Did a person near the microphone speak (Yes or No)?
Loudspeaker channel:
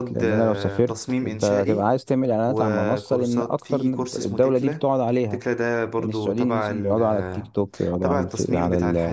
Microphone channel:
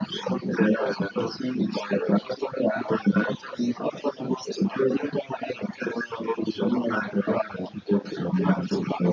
No